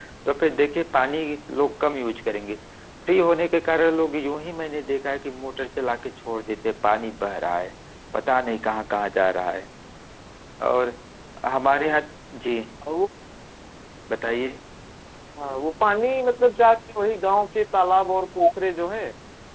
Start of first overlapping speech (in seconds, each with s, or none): none